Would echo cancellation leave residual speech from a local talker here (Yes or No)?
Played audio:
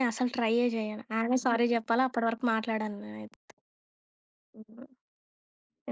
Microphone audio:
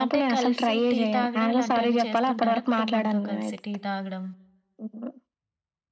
Yes